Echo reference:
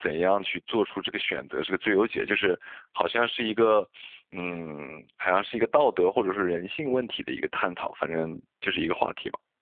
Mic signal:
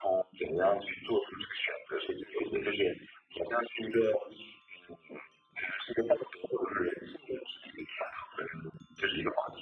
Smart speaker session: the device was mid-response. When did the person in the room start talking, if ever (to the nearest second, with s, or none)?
none